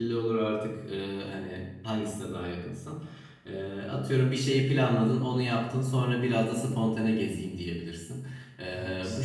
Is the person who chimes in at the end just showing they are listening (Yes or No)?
Yes